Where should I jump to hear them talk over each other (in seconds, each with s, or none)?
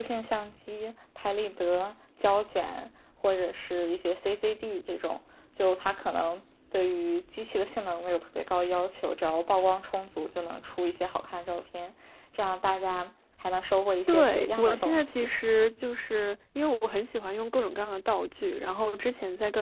14.1 s